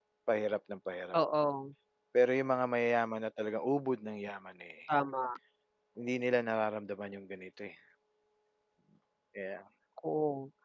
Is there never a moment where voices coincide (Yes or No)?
Yes